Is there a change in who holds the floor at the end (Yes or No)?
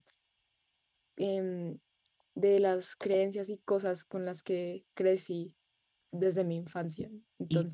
Yes